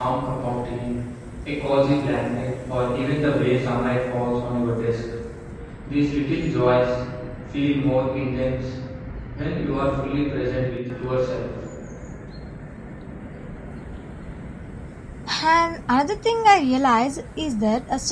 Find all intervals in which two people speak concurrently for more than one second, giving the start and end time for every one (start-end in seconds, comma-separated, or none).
none